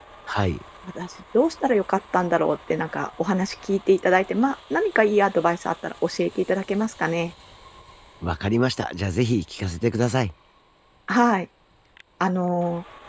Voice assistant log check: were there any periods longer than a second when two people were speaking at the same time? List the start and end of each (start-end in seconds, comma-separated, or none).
none